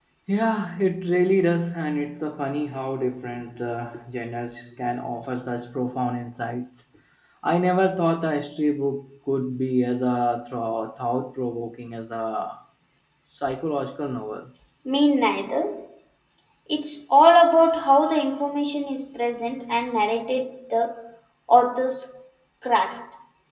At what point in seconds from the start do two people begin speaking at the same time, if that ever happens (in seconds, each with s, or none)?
none